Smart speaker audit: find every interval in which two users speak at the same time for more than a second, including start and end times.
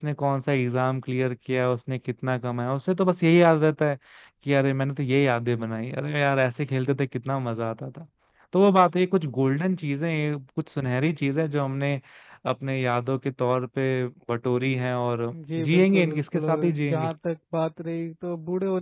15.6-17.1

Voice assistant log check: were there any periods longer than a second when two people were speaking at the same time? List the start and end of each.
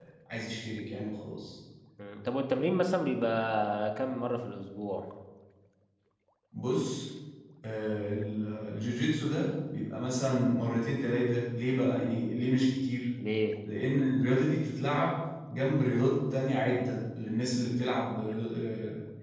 none

